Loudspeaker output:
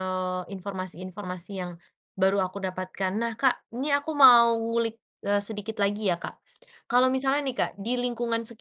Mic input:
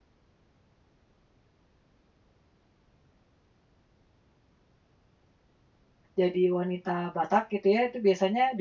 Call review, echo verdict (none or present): none